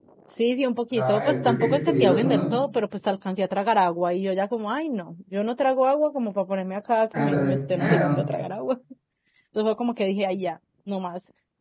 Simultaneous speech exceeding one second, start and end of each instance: 0.9-2.5

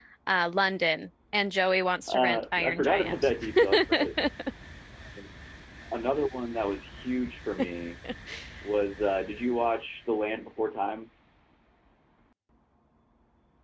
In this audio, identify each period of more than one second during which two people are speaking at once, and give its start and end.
2.1-3.3

